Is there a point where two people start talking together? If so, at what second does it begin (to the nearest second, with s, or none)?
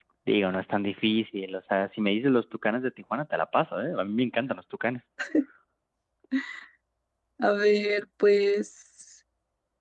none